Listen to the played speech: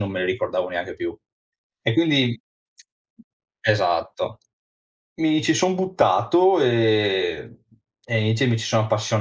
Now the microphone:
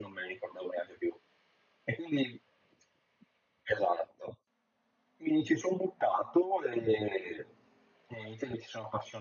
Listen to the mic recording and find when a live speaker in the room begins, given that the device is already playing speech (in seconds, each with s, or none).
none